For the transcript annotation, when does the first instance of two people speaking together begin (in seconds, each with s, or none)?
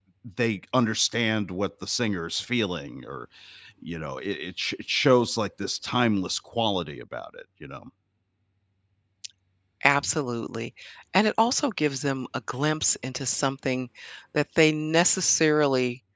none